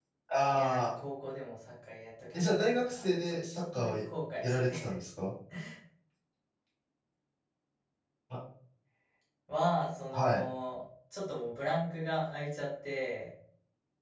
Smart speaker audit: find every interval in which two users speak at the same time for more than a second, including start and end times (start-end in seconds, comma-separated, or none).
2.3-3.9